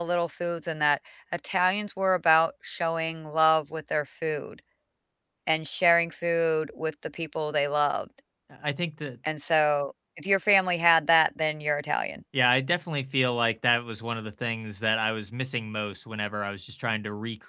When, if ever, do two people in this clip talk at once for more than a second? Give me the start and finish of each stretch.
none

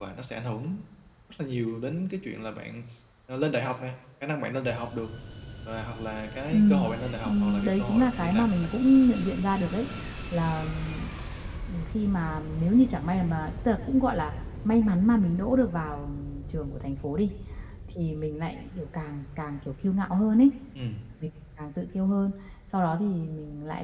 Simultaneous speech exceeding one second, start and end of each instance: 7.2-8.7

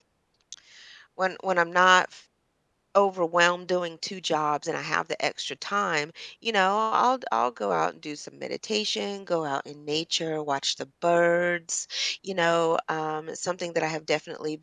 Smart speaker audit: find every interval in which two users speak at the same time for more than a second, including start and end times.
none

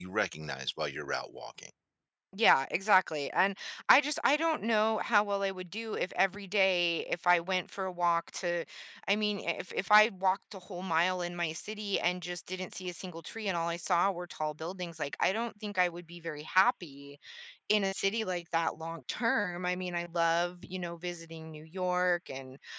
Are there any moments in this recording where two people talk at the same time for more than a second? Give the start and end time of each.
none

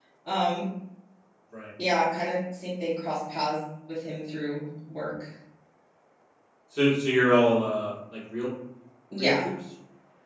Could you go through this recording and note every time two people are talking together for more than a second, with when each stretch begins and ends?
none

